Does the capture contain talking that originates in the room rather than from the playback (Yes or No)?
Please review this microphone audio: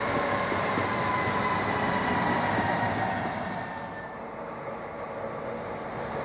No